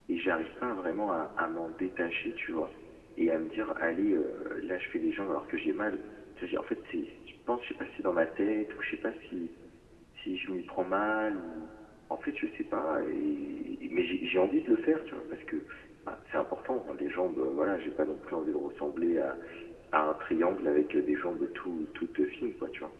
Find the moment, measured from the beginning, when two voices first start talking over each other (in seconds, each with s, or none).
none